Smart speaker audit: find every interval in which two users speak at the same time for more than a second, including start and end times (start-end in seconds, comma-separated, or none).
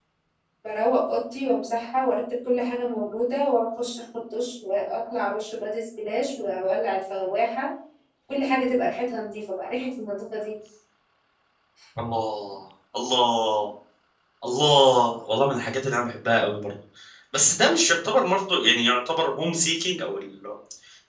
none